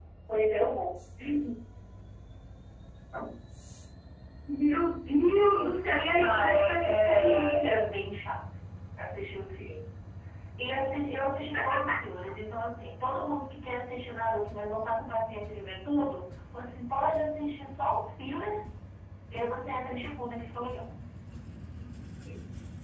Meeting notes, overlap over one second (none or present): present